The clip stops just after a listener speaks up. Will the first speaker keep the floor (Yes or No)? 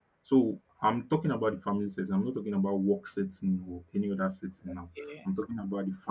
Yes